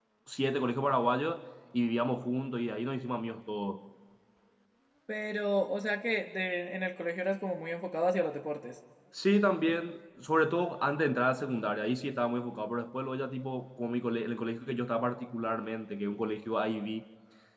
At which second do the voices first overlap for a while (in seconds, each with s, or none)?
none